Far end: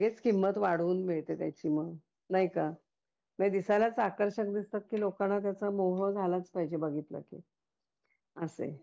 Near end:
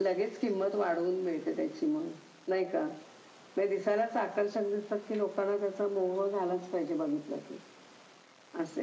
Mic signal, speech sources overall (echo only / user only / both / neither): echo only